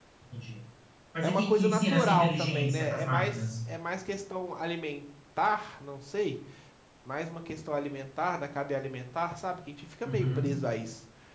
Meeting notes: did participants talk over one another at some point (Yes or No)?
Yes